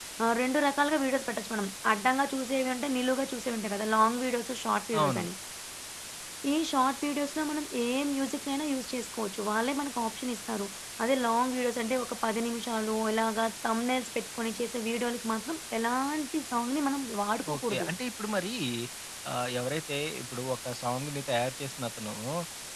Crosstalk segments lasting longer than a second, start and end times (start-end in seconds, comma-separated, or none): none